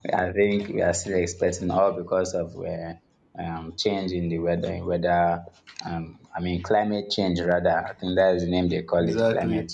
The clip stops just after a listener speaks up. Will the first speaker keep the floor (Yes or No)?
No